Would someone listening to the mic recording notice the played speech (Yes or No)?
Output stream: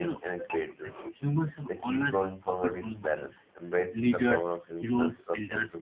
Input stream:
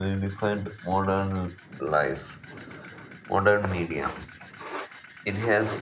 No